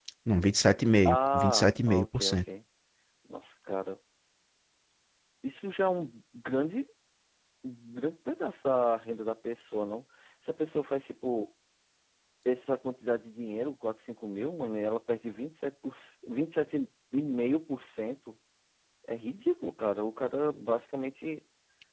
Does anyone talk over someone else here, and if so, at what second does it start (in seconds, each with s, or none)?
1.1 s